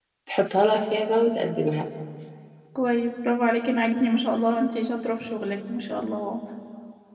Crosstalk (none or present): none